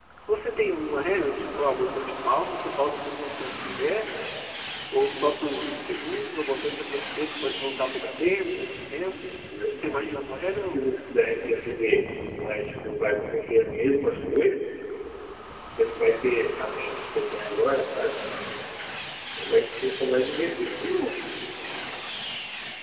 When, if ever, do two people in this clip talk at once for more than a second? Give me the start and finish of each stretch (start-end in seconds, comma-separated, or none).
none